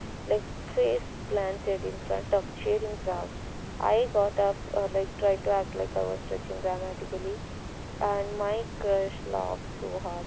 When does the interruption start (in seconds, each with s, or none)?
none